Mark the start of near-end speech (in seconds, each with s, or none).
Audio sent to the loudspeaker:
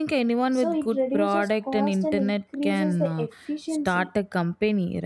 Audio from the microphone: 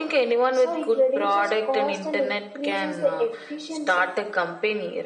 none